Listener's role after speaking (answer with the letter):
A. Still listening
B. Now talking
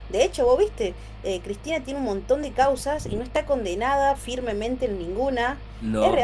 A